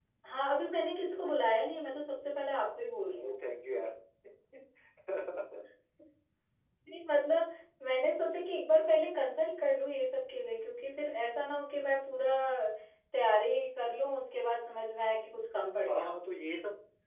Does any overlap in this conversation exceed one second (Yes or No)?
No